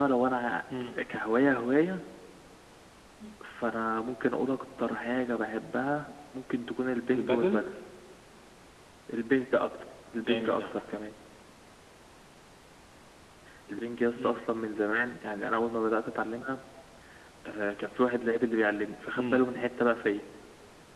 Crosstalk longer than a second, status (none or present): none